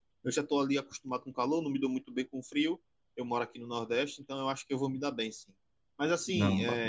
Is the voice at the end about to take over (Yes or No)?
No